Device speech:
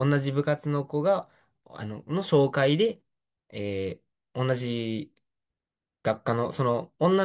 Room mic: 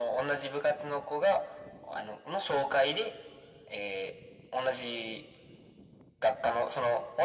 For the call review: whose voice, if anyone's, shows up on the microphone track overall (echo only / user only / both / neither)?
echo only